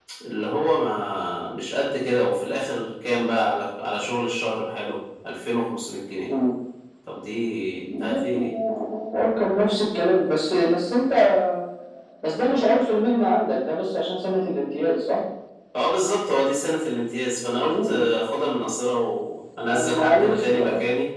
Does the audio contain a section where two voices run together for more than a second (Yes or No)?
Yes